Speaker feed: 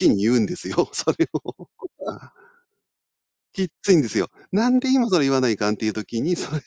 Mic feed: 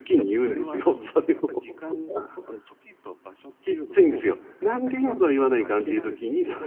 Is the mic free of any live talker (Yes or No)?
No